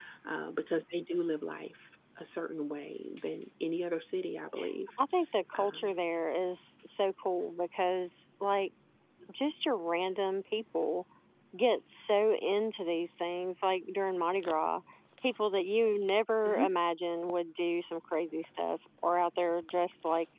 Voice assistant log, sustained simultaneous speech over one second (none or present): none